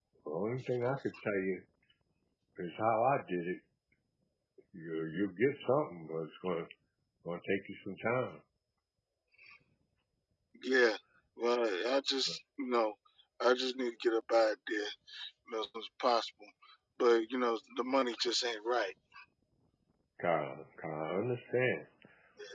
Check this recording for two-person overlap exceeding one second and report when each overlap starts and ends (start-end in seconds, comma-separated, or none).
none